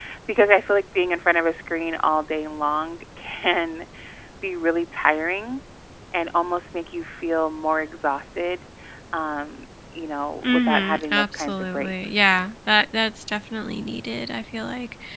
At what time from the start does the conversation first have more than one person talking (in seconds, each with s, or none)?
10.4 s